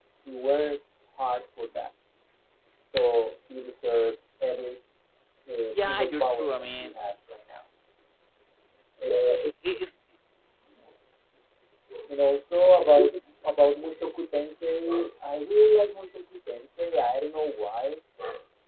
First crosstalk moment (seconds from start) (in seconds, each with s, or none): 5.7 s